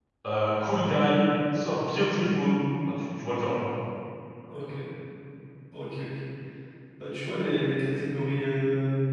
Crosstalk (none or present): none